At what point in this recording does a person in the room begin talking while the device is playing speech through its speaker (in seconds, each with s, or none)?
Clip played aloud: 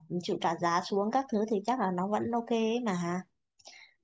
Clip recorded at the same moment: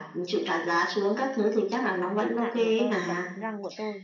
2.2 s